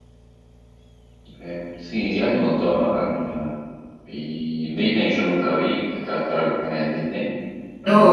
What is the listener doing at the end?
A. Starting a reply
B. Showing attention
A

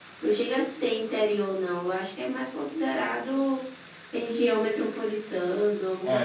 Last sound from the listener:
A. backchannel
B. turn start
B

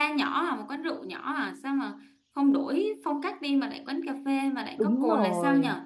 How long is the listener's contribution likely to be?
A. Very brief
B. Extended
B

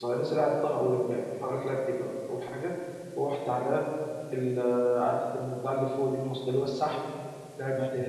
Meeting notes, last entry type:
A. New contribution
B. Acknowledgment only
B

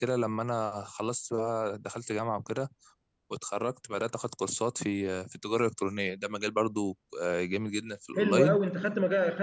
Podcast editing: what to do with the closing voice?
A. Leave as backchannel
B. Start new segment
B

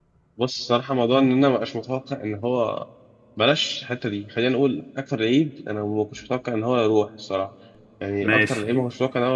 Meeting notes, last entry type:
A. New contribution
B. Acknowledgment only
B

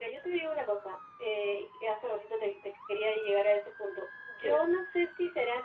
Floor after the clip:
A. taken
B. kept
B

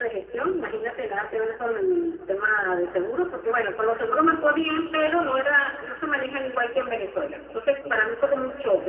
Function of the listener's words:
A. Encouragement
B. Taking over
A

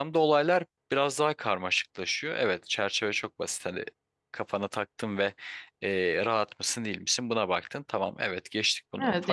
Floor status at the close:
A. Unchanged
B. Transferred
B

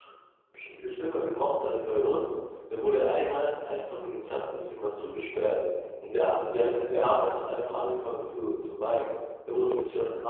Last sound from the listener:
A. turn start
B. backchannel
B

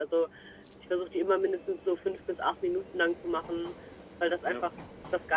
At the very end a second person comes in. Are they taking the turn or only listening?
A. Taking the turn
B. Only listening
B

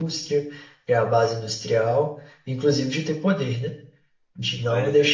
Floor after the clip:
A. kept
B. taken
A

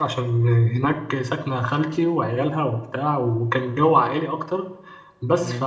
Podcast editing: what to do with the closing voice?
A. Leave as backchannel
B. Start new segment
A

